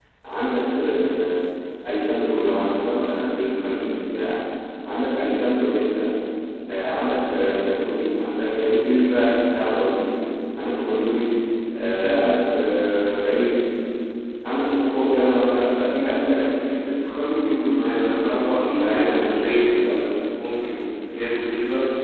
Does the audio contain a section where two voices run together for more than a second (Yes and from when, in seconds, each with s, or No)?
Yes, from 17.8 s